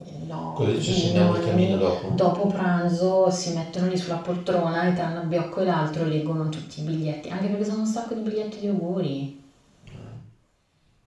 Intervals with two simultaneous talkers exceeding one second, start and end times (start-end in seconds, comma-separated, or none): 0.6-2.2